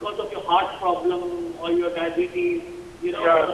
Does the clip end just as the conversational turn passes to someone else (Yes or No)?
No